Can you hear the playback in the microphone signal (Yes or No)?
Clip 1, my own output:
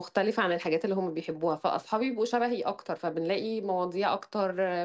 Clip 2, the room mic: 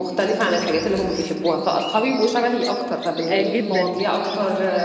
Yes